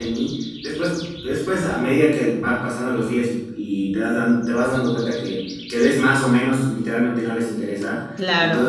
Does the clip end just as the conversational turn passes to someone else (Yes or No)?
No